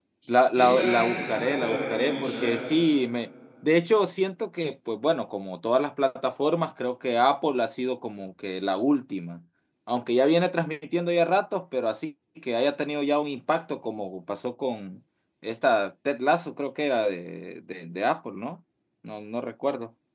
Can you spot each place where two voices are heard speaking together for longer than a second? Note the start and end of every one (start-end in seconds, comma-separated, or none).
0.5-2.5